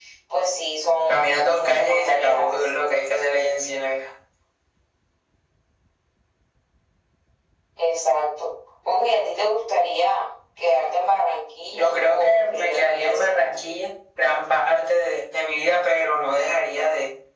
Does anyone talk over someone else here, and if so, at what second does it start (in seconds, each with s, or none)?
1.1 s